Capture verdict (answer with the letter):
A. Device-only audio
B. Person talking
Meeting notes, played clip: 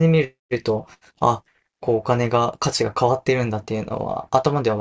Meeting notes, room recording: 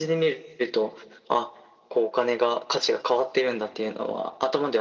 A